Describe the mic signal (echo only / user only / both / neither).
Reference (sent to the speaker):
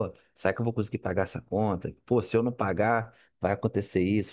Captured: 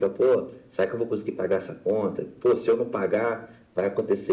echo only